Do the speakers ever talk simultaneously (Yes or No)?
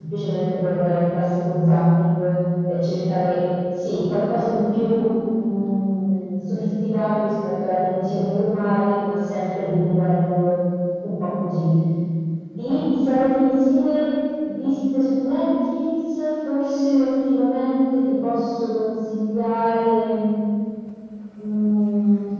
No